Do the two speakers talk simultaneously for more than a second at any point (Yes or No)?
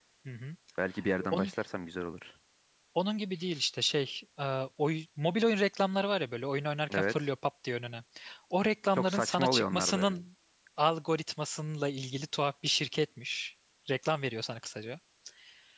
Yes